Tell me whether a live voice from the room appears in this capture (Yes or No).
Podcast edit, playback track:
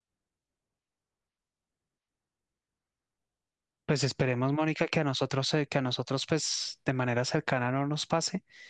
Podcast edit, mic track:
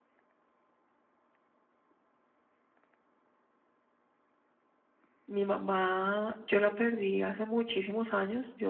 Yes